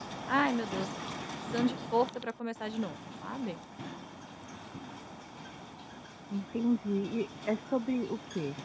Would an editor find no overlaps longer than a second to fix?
Yes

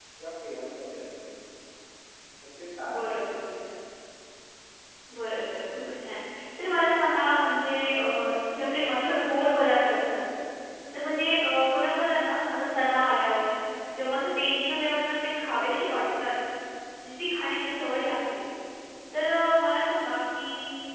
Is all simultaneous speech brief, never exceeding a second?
Yes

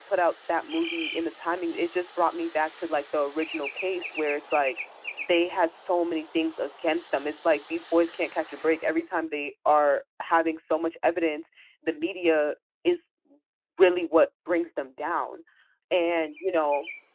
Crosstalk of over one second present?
No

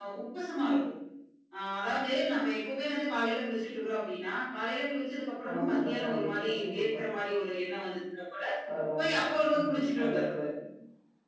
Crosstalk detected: Yes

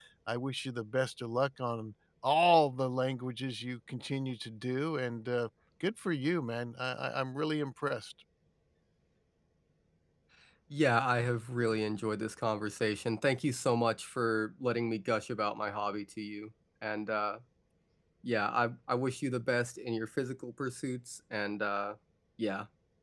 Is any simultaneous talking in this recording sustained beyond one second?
No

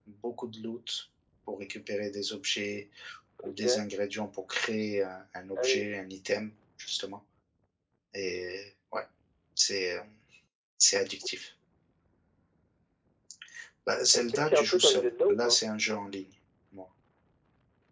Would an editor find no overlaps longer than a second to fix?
No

